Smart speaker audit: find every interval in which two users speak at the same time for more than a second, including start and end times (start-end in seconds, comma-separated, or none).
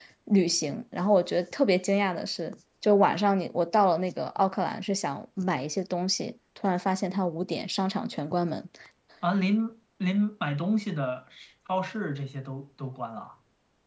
none